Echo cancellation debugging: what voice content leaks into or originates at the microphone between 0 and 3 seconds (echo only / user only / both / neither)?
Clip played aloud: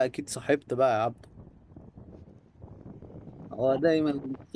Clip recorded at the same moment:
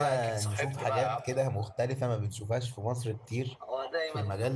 both